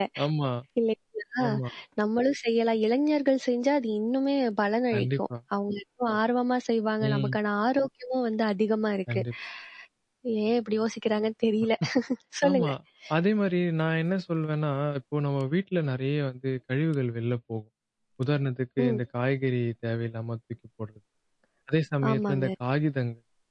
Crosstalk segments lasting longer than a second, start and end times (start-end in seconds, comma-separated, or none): none